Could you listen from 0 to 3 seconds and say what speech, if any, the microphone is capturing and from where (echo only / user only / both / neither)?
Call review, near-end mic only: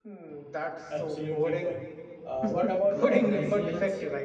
both